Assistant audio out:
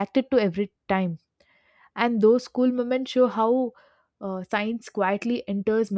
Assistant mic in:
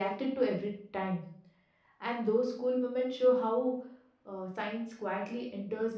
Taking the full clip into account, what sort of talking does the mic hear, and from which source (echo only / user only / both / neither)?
echo only